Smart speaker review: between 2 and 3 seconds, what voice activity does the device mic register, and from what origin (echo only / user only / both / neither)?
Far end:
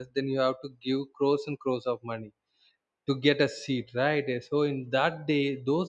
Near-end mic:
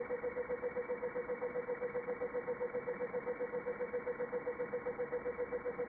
neither